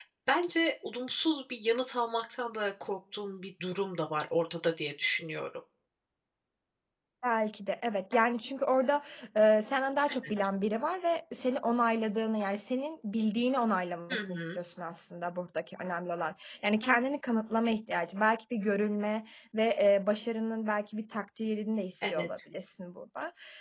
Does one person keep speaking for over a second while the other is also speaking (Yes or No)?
No